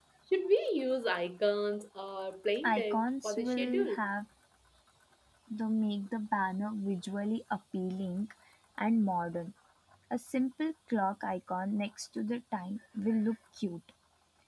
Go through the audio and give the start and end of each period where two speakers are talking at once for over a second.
2.6-4.1

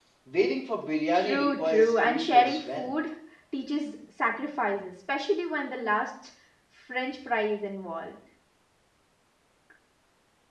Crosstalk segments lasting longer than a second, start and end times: 1.1-2.9

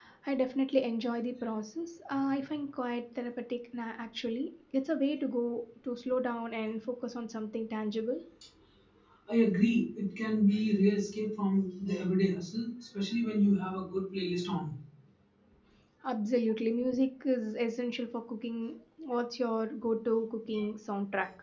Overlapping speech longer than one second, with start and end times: none

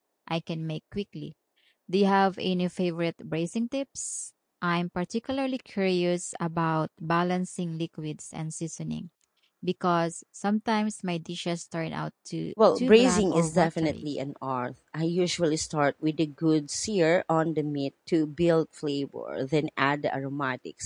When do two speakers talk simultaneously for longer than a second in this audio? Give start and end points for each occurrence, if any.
12.8-14.1

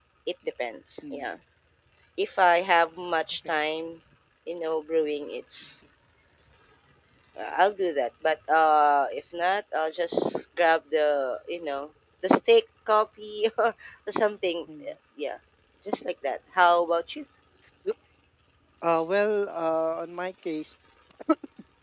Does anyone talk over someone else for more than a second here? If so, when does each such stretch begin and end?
none

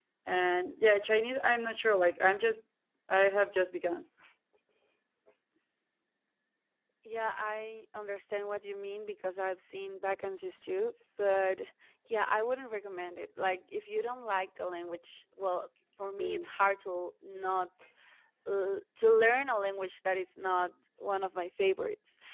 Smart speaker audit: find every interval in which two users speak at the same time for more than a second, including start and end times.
none

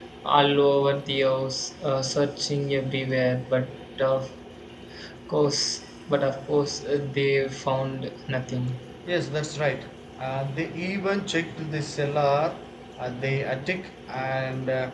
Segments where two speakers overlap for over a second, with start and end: none

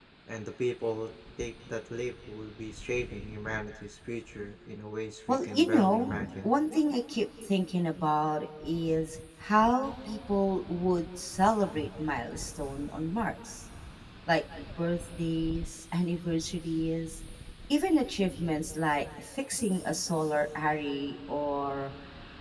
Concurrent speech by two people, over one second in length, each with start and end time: 5.3-6.5

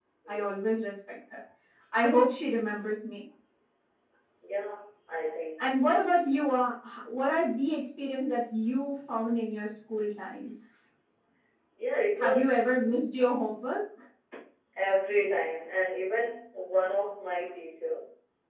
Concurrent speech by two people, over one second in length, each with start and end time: none

